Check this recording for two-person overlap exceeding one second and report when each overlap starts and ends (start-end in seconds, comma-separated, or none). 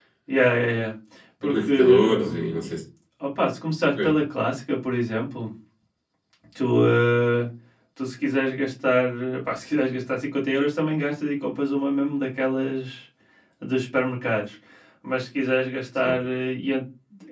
1.4-2.7